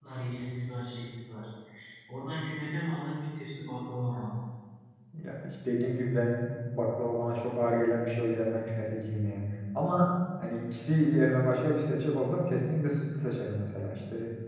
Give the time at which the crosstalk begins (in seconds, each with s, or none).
none